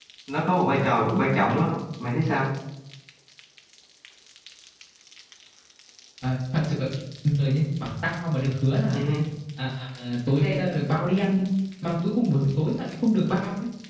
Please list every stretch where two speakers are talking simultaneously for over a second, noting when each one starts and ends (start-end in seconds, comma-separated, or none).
none